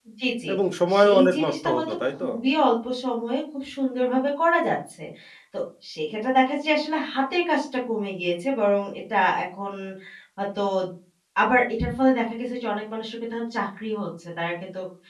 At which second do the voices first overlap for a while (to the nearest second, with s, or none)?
1 s